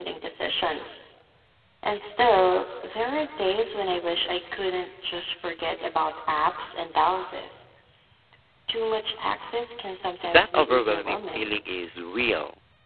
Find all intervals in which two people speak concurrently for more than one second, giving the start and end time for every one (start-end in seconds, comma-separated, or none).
10.2-11.5